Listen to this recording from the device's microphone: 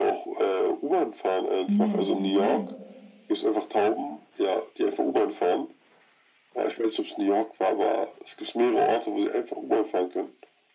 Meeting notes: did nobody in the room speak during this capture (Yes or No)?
No